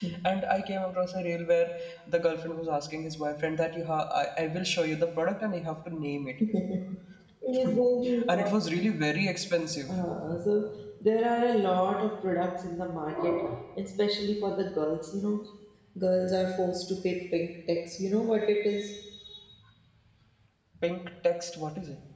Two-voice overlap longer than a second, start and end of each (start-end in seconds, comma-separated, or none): none